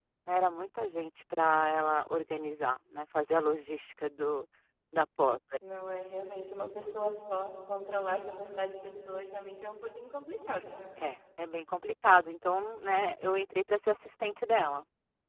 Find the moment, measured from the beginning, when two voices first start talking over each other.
none

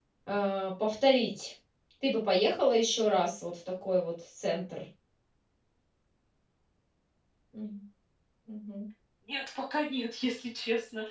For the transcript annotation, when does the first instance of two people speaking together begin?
none

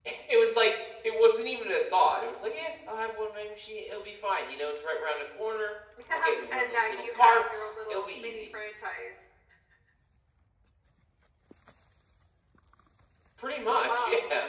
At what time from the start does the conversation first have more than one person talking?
6.1 s

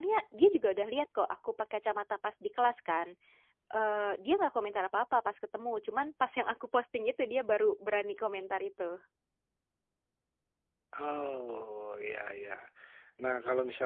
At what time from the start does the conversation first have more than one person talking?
none

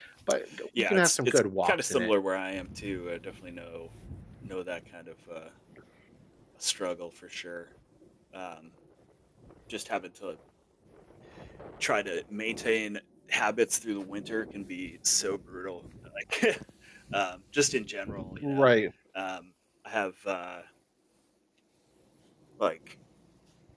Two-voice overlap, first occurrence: 0.8 s

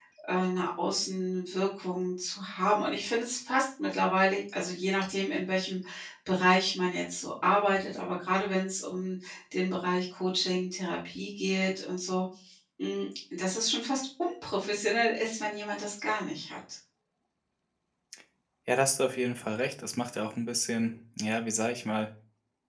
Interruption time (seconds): none

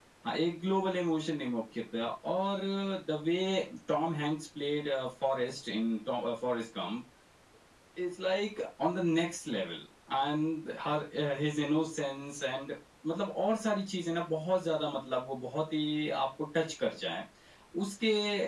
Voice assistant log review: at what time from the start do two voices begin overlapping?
none

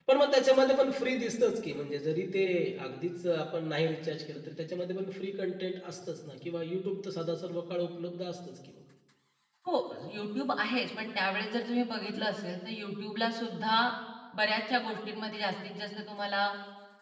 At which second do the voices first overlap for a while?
none

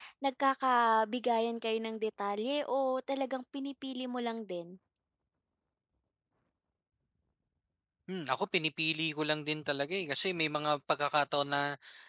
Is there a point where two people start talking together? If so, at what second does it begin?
none

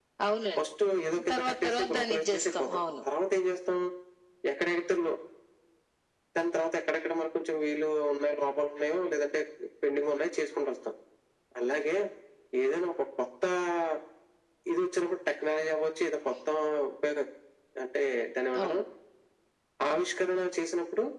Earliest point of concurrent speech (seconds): 1.3 s

